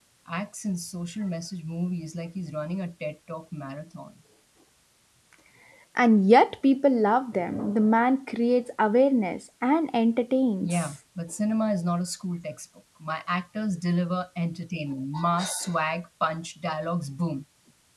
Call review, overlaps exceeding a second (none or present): none